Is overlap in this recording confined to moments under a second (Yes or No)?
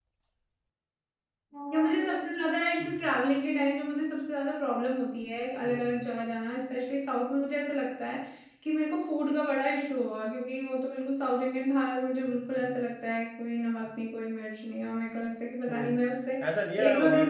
Yes